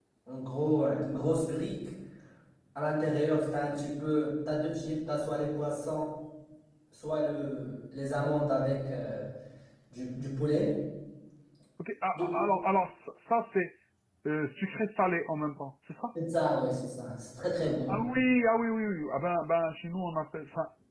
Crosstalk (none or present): none